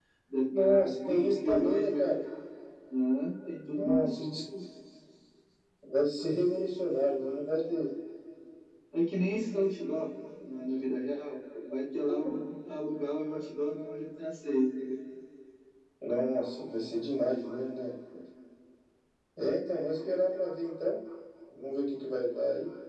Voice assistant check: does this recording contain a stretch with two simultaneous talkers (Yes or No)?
Yes